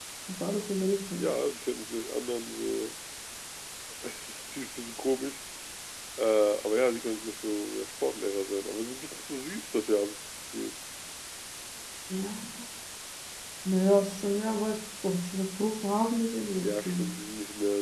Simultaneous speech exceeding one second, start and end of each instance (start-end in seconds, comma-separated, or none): none